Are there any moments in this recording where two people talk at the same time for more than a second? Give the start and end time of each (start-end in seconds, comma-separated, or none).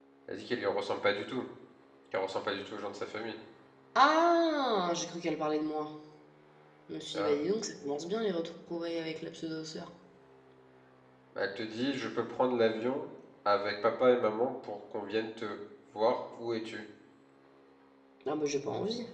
none